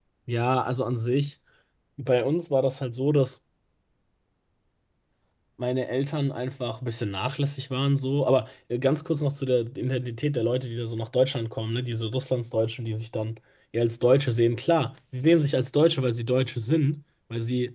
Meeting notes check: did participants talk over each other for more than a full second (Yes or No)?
No